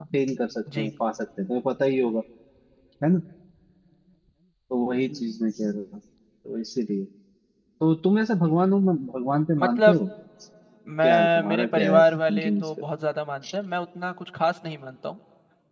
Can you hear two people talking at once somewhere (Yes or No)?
Yes